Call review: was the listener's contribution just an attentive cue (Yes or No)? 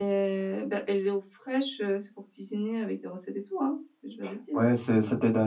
No